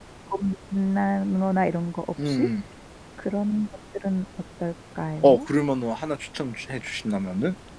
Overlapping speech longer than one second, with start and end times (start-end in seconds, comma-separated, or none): none